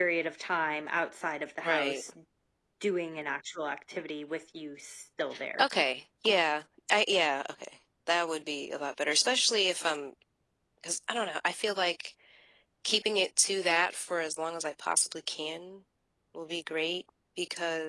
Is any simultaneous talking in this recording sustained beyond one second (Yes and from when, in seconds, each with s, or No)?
No